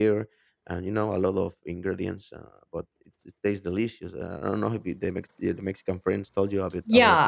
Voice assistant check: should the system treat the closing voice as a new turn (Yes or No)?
Yes